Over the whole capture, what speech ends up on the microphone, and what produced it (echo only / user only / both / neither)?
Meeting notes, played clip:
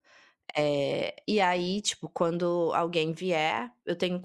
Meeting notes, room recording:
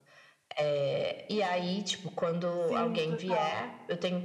both